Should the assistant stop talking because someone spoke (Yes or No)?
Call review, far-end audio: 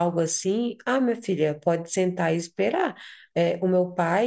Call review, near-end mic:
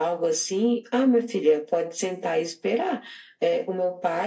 No